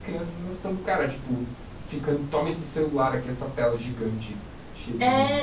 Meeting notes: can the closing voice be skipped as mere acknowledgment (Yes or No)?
No